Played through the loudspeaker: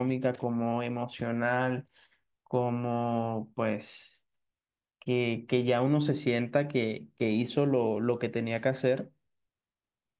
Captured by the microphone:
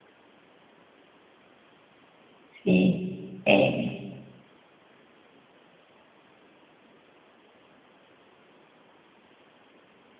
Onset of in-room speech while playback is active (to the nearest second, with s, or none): 2 s